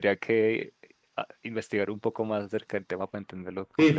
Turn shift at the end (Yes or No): Yes